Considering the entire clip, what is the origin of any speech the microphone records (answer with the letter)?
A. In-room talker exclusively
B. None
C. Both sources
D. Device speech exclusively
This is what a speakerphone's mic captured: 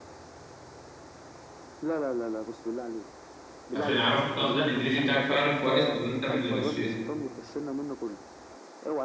C